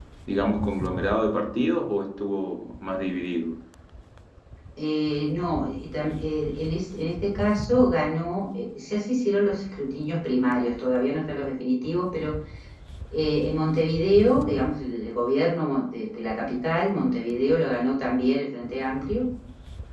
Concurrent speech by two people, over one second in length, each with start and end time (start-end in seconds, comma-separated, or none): none